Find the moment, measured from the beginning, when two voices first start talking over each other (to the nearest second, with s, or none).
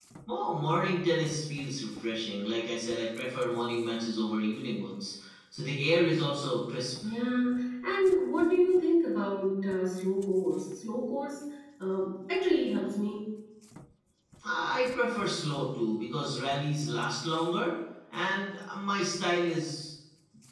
none